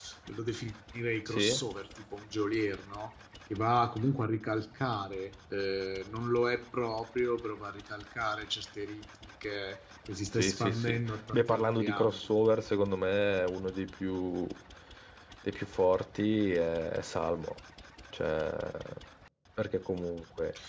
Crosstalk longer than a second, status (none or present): present